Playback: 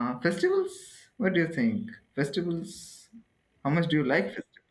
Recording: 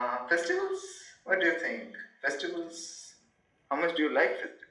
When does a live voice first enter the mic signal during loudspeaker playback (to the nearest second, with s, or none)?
none